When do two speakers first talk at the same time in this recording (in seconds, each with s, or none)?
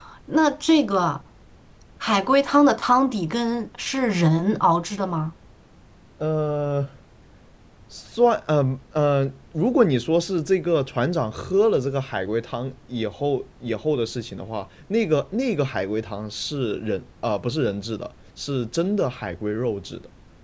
none